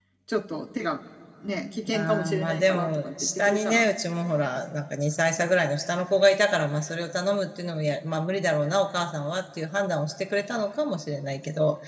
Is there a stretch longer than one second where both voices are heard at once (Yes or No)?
Yes